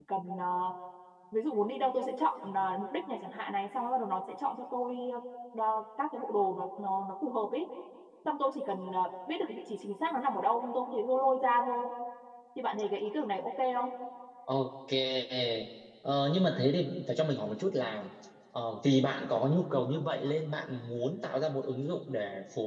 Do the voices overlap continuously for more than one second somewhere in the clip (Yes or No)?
No